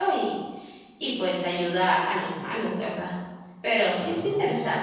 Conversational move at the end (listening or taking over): taking over